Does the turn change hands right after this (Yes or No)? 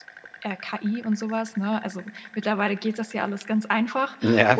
No